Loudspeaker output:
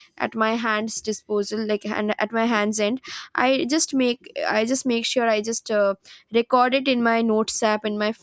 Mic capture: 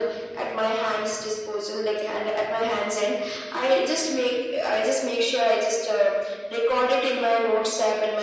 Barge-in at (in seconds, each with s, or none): none